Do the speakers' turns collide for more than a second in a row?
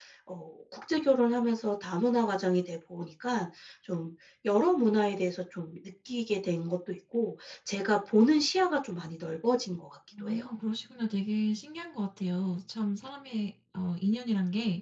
No

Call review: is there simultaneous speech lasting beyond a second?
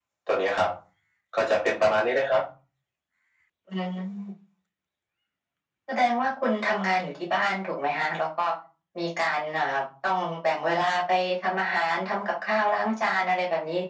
No

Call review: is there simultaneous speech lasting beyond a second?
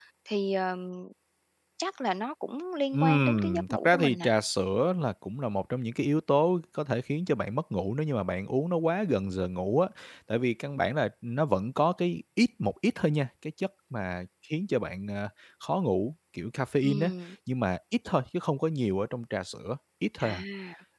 Yes, from 2.9 s

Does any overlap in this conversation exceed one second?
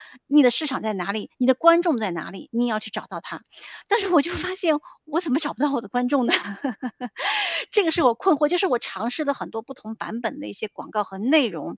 No

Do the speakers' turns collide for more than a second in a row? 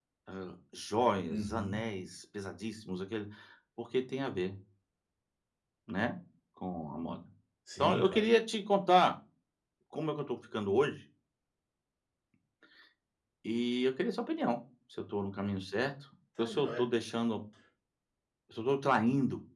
No

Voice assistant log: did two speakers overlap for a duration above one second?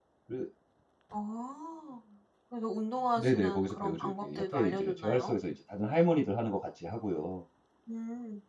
Yes, from 3.2 s

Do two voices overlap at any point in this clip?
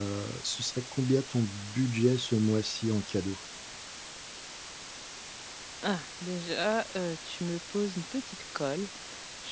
No

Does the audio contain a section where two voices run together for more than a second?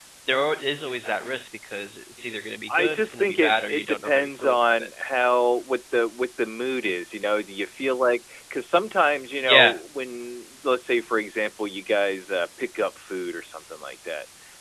Yes, from 2.7 s

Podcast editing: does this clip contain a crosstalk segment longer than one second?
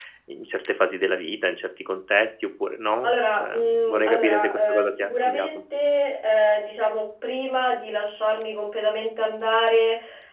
Yes, from 3.0 s

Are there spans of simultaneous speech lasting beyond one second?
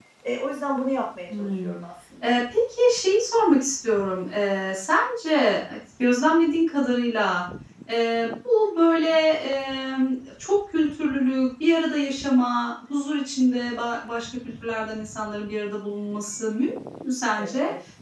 No

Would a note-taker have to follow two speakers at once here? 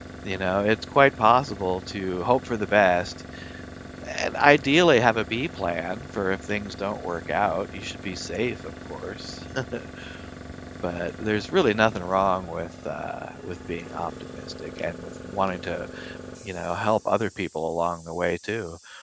No

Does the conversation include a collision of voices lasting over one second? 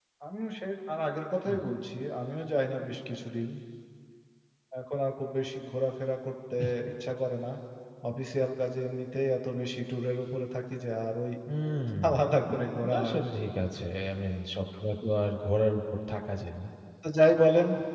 No

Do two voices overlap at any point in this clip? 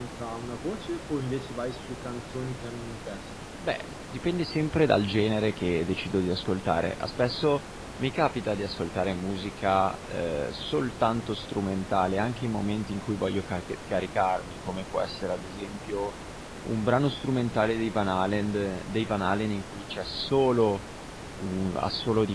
No

